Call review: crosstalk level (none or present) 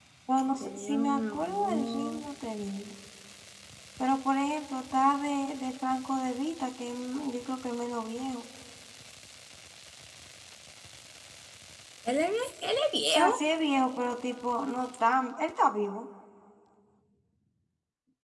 present